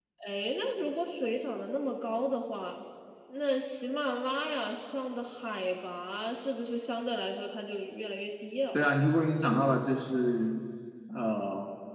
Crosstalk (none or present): none